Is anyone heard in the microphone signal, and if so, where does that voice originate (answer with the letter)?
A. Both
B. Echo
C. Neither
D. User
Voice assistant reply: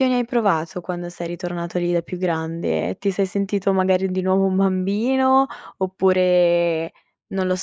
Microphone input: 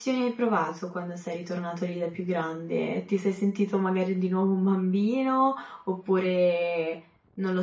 B